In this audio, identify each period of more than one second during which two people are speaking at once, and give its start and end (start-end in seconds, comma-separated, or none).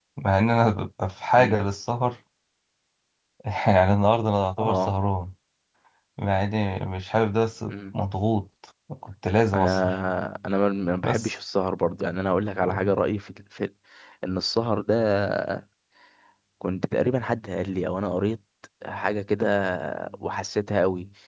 none